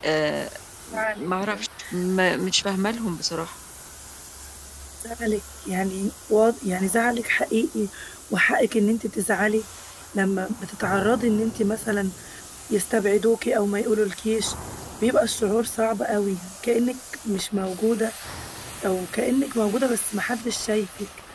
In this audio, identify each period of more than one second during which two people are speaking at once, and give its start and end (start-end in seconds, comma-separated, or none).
none